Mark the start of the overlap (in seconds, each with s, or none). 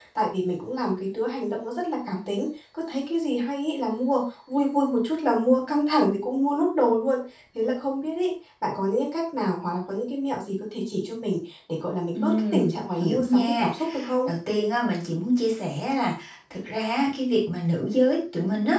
12.1 s